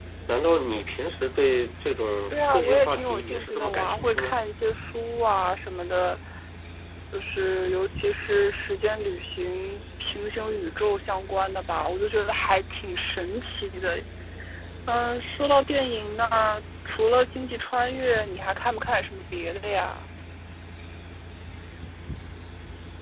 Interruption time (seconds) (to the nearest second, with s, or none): 2 s